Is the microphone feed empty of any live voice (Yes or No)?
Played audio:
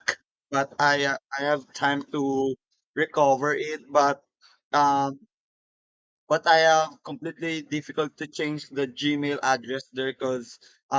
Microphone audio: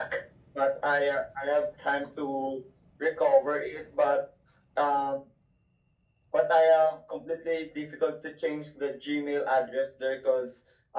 Yes